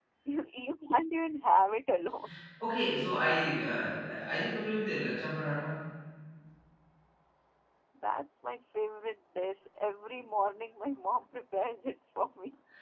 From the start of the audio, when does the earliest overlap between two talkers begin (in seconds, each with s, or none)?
none